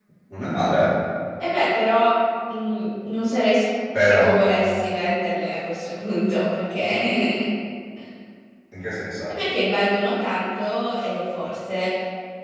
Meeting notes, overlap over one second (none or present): none